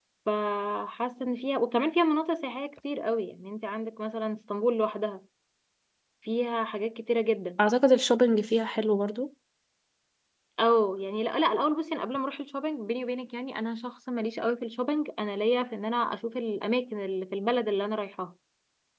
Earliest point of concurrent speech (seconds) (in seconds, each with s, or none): none